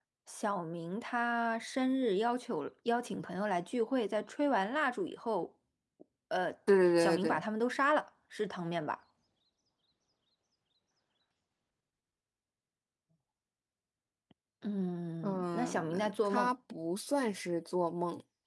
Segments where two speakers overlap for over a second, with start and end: 15.2-16.5

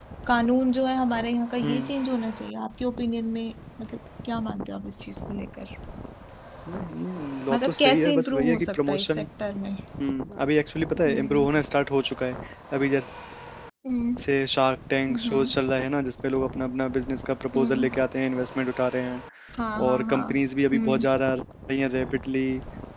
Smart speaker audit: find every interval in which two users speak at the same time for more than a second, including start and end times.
7.5-9.2

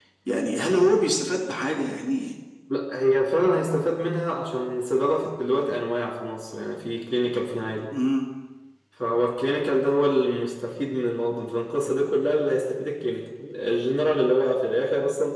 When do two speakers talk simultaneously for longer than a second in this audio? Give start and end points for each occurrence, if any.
none

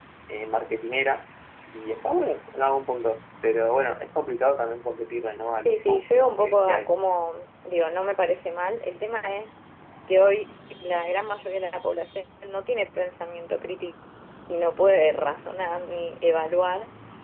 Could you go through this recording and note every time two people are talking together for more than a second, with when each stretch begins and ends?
5.6-6.9

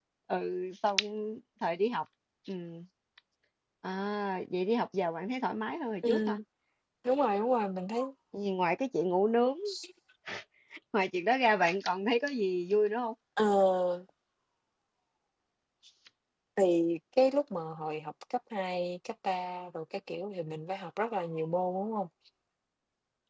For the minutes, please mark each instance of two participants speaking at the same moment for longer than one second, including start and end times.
none

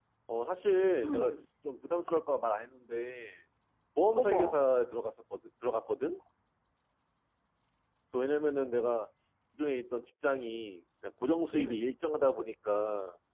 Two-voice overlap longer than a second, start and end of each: none

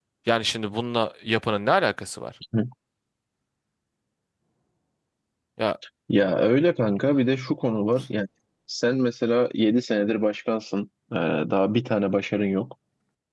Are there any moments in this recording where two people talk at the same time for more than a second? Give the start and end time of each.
none

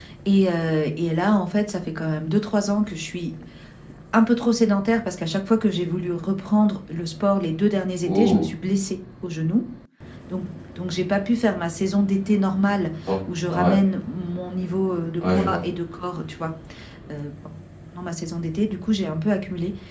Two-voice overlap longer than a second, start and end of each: none

